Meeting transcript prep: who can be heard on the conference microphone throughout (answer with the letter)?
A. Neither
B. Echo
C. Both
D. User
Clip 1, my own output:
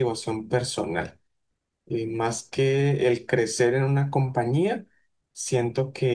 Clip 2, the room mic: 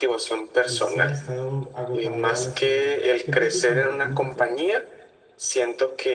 C